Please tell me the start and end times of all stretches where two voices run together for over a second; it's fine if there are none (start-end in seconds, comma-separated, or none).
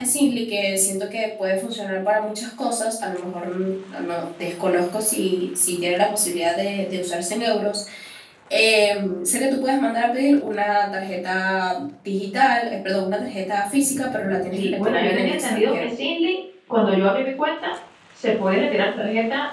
14.6-15.9